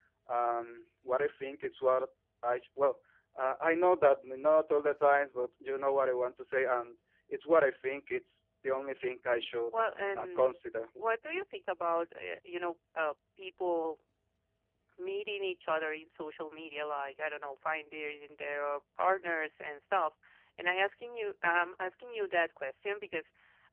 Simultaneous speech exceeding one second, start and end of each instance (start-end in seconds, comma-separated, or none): none